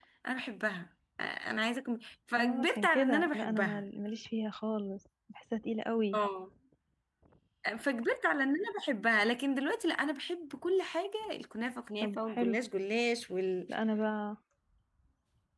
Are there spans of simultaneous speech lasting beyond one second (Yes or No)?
Yes